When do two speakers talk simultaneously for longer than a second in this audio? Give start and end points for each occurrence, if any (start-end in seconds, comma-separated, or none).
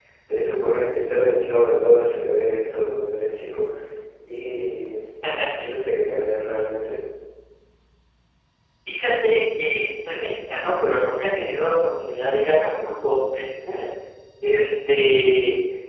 none